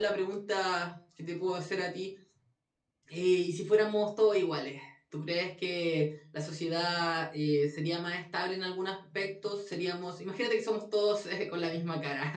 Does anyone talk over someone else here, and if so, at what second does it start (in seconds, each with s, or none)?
none